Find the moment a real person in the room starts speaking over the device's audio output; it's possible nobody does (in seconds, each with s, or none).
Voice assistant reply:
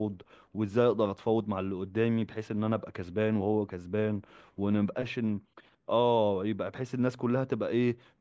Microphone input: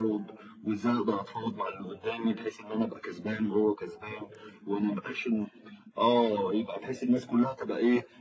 none